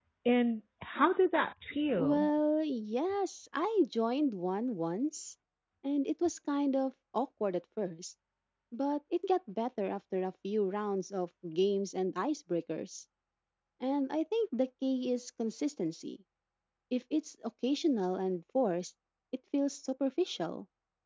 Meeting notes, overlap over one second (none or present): none